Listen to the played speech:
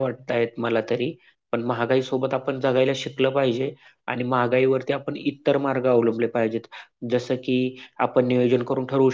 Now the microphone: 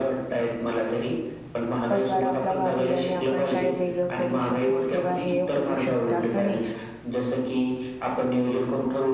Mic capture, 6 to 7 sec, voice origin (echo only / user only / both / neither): both